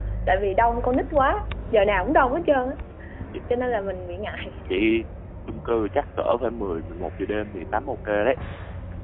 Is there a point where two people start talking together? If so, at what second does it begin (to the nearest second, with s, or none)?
none